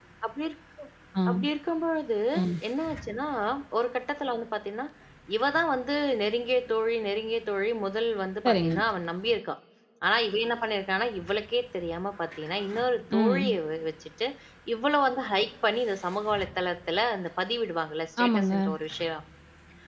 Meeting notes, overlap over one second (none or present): none